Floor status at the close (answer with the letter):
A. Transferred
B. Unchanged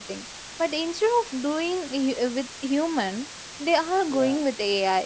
B